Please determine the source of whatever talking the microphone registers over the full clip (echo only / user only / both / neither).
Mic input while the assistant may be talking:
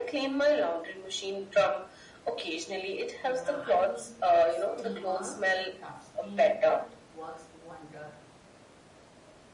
both